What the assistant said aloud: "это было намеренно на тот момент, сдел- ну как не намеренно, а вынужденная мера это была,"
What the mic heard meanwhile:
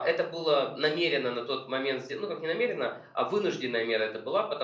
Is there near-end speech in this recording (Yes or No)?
No